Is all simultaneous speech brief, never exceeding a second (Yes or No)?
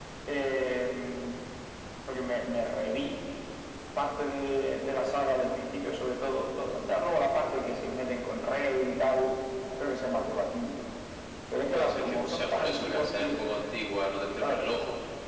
No